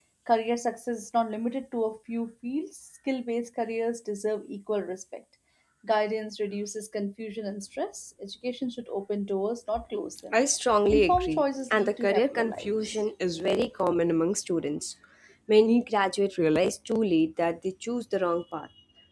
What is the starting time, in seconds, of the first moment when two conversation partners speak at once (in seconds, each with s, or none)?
10.9 s